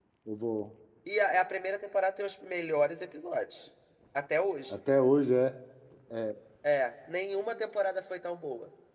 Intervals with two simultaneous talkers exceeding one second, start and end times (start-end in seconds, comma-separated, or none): none